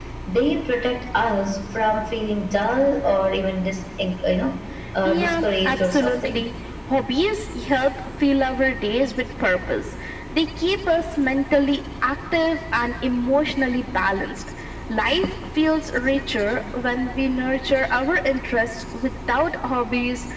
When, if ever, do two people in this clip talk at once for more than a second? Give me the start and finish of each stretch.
5.0-6.5

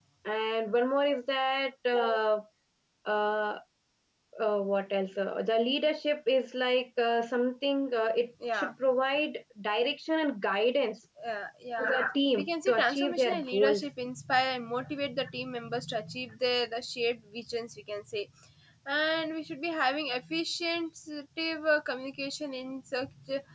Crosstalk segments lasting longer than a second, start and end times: 12.4-13.8

